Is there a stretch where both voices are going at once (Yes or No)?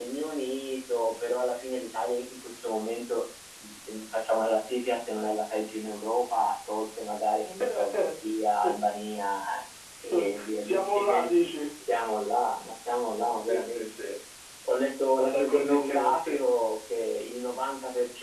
Yes